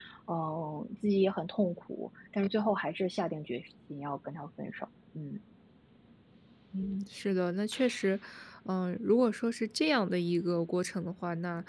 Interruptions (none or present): none